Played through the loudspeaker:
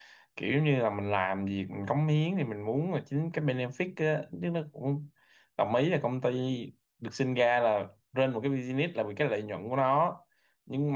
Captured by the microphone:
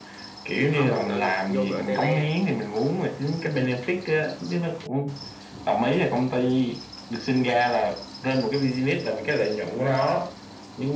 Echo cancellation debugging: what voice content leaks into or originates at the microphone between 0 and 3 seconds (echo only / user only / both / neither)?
both